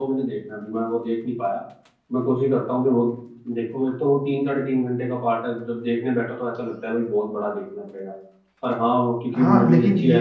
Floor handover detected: Yes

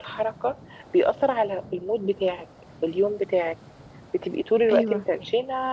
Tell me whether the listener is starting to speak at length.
No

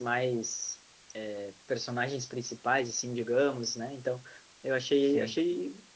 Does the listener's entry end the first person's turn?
No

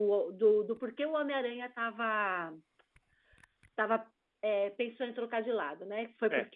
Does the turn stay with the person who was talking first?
Yes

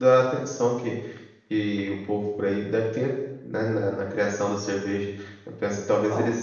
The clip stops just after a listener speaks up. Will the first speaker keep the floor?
Yes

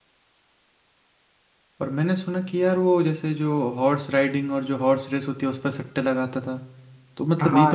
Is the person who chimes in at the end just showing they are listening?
Yes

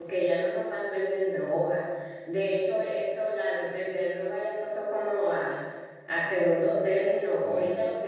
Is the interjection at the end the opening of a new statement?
No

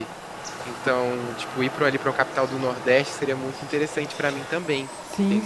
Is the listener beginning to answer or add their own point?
Yes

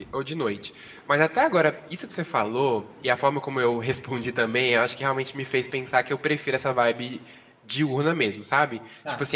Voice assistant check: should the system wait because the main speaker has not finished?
Yes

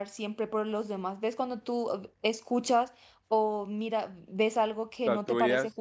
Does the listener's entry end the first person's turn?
Yes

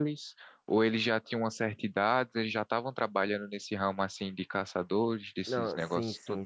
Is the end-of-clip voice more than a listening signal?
Yes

